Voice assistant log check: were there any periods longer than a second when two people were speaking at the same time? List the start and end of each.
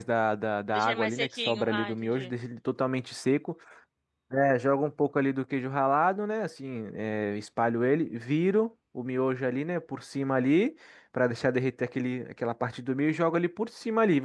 0.7-2.3

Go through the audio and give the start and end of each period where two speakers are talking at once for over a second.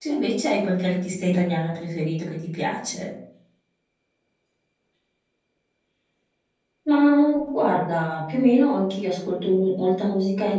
none

